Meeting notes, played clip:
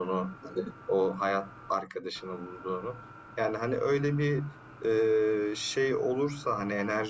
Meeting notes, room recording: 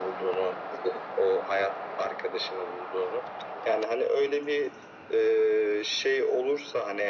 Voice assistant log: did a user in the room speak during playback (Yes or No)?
No